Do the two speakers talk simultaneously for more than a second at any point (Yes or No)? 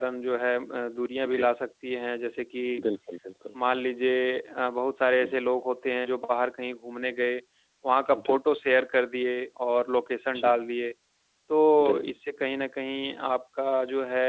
No